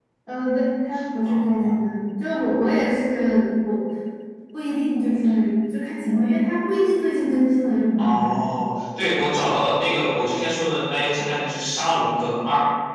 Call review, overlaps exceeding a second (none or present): none